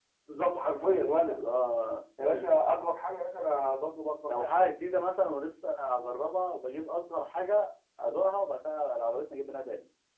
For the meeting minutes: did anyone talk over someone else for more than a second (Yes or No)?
No